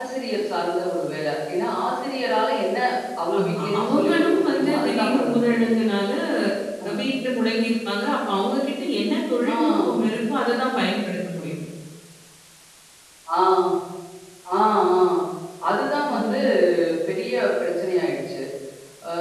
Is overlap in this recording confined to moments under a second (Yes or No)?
No